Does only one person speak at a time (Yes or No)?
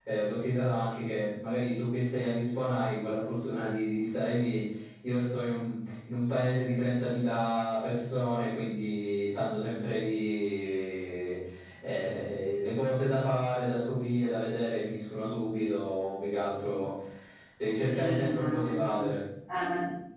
No